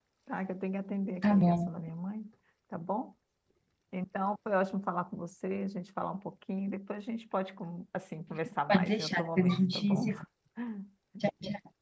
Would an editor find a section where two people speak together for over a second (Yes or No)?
Yes